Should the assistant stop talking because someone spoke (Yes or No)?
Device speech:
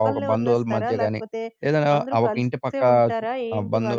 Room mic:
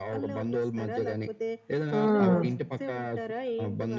Yes